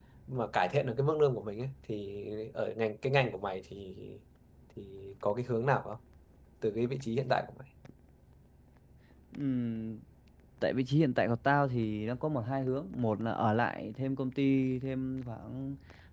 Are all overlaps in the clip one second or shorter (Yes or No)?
Yes